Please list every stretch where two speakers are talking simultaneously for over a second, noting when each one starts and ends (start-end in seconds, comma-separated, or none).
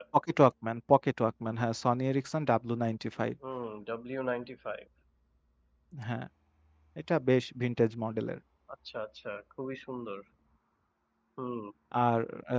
none